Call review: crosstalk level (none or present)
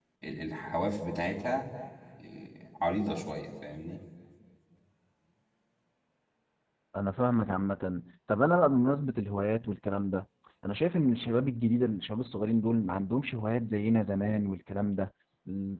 none